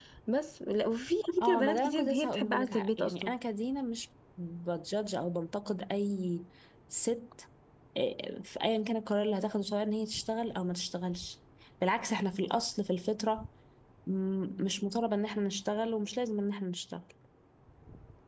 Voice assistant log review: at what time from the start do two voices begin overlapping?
1.4 s

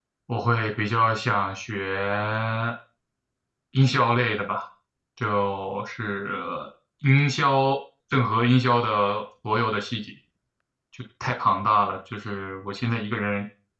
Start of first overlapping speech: none

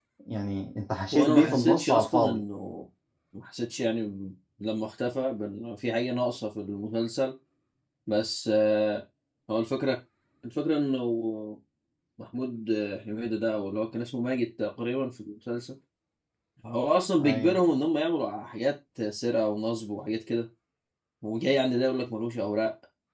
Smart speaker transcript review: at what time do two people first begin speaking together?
1.1 s

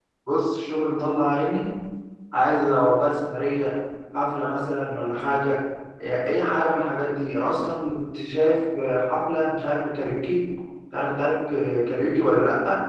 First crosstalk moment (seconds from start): none

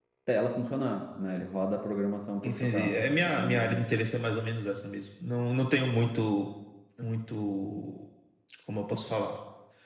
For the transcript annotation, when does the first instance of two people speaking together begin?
2.4 s

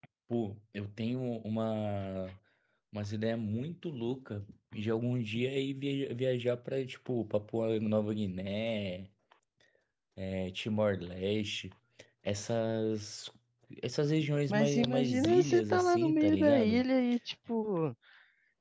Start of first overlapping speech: 14.5 s

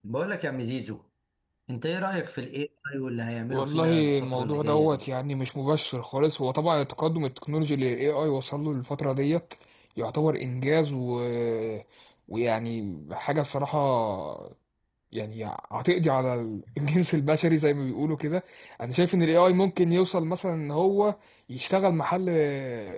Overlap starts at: 3.5 s

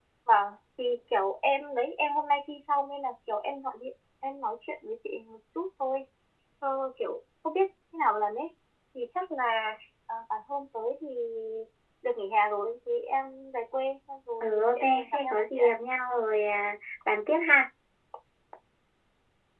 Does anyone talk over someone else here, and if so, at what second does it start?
14.4 s

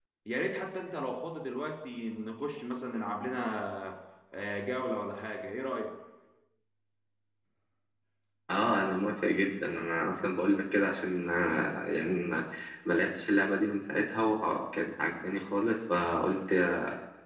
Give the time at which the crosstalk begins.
none

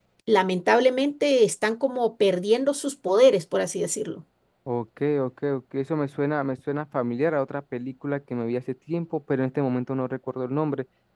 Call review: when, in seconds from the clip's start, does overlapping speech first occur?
none

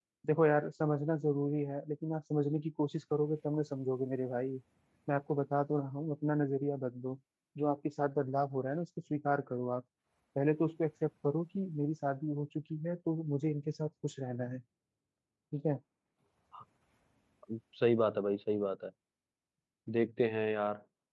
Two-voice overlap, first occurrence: none

